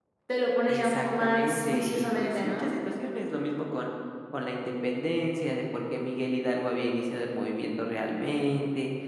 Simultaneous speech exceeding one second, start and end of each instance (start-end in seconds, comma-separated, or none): 0.7-2.7